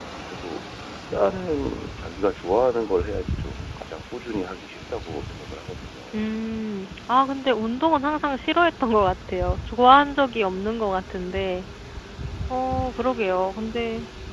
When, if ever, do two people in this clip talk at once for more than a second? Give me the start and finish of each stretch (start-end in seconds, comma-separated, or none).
none